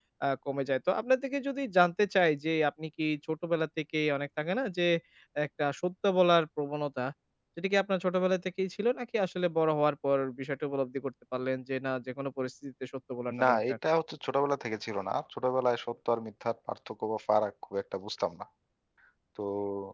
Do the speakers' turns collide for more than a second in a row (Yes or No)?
No